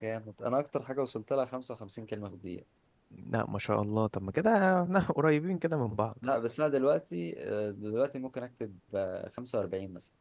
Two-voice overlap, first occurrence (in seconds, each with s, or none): none